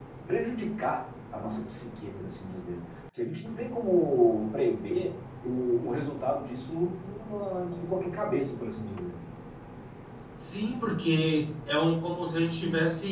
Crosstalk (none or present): none